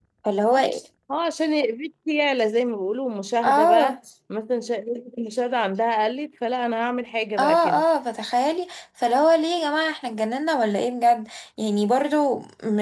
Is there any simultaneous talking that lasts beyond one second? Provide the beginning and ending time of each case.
none

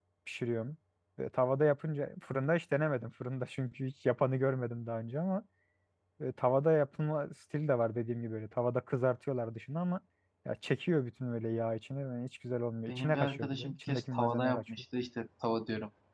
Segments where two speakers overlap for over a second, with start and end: 12.9-14.7

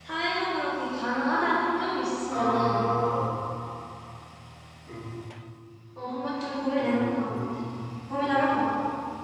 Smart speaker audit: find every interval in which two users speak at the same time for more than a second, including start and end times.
none

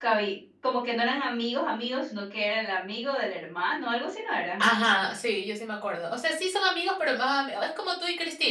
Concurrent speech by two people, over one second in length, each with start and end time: none

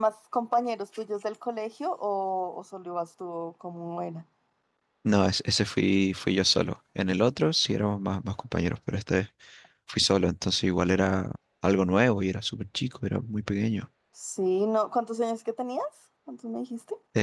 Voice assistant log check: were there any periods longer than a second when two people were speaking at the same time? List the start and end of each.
none

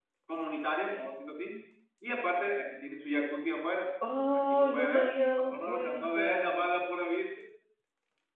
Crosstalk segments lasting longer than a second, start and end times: 4.5-6.7

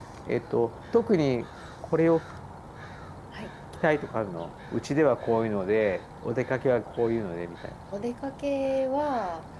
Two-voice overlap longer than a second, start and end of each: none

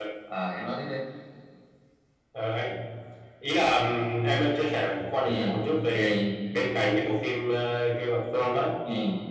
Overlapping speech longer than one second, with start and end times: none

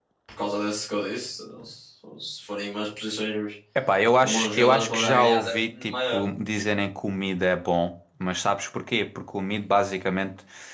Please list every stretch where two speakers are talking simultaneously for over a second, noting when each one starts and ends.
4.2-6.2

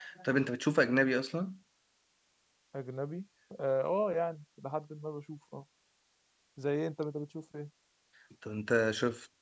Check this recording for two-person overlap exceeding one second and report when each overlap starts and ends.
none

